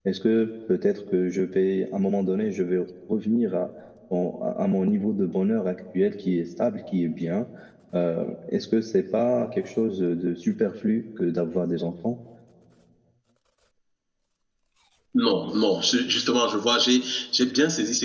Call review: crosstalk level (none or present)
none